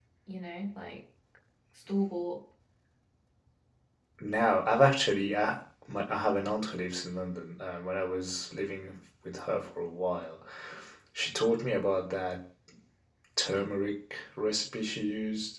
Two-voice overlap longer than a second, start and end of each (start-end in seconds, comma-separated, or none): none